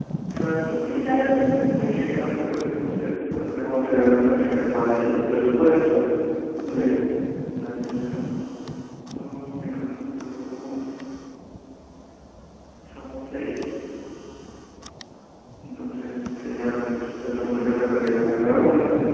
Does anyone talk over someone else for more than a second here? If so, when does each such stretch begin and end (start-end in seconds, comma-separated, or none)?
0.8-2.2